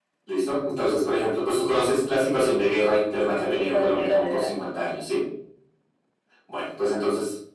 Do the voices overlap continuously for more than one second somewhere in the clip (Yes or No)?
Yes